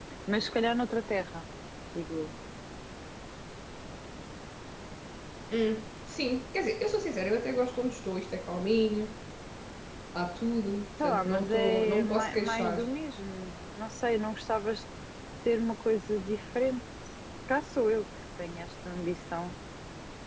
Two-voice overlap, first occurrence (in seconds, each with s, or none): 11.0 s